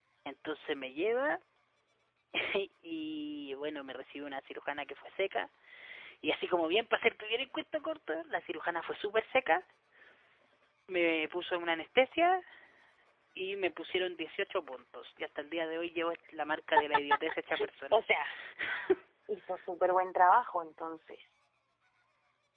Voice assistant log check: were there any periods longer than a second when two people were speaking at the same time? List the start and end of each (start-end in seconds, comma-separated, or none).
none